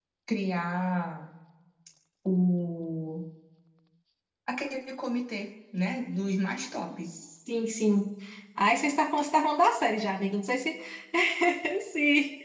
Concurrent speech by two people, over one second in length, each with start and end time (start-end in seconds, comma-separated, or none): none